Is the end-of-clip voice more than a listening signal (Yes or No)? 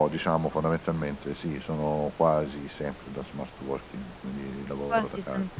Yes